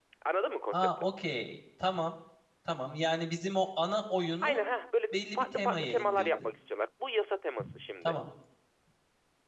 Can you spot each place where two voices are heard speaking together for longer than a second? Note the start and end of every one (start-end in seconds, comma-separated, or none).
5.1-6.5